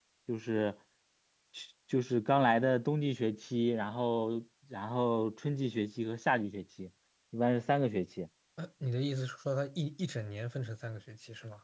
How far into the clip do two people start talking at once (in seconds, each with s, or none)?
none